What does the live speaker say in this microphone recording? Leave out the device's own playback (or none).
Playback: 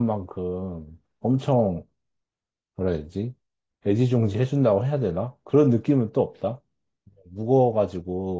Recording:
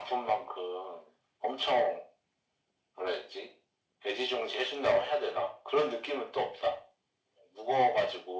none